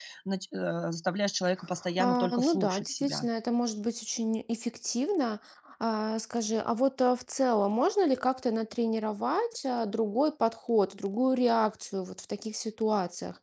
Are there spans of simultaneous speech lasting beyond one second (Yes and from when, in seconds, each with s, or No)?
Yes, from 2.0 s